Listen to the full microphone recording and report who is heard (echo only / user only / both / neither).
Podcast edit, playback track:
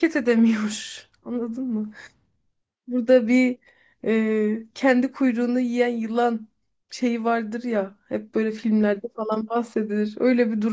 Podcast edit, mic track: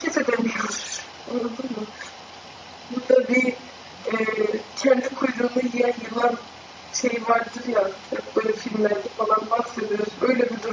echo only